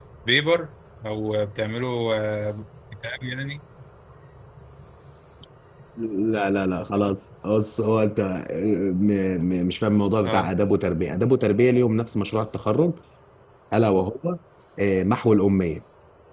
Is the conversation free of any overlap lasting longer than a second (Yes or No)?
Yes